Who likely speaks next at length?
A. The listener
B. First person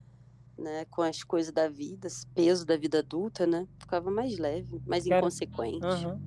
A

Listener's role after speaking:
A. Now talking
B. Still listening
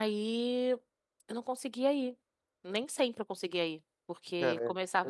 B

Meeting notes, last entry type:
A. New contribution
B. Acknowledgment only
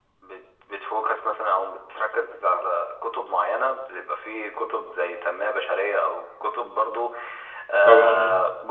B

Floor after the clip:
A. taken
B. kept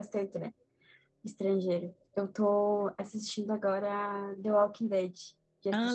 A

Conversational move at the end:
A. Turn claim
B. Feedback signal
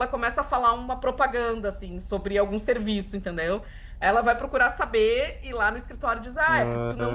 B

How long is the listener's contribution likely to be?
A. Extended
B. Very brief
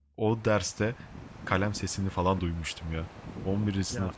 B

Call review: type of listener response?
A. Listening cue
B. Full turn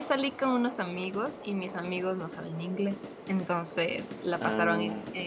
A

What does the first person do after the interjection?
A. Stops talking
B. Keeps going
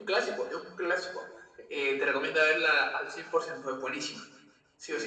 A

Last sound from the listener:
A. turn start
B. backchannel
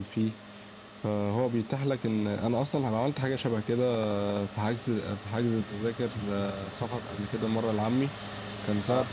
B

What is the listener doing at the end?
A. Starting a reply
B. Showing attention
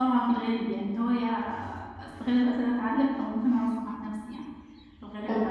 B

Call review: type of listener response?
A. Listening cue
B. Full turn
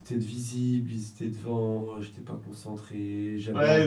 B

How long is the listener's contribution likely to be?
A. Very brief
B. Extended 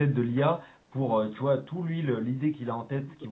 A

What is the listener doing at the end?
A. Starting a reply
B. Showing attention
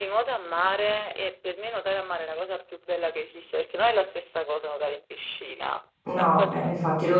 A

